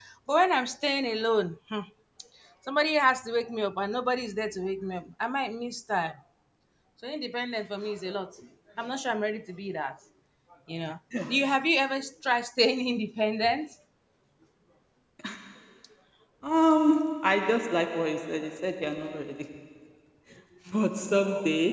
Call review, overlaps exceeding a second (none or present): none